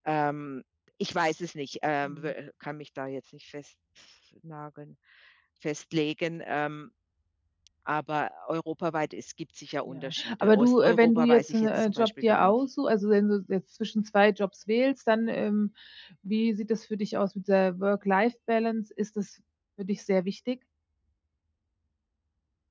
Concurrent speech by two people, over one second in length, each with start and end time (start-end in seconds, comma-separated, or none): 9.9-12.5